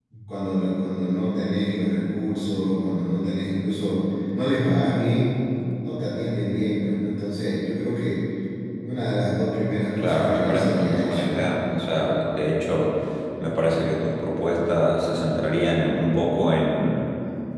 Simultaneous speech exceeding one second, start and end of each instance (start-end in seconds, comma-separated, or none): 10.0-11.5